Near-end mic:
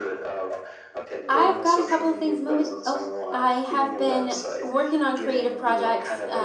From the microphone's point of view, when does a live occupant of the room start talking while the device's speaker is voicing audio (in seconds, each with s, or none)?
1.3 s